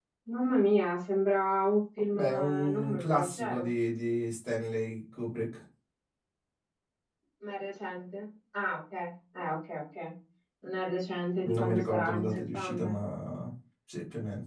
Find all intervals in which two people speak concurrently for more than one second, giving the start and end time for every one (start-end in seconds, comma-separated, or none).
2.1-3.7, 11.4-12.9